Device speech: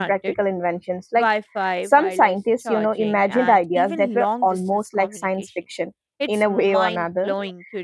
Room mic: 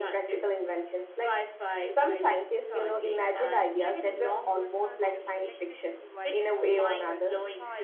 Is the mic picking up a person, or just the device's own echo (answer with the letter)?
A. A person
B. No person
A